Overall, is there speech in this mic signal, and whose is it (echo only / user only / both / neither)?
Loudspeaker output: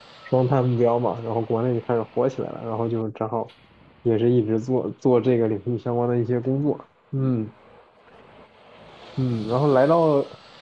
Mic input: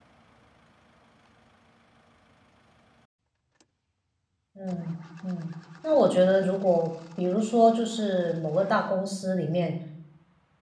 user only